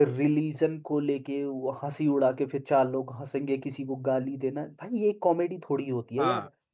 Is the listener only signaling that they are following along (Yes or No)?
Yes